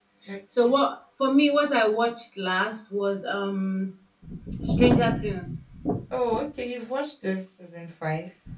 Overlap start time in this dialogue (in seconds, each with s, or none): none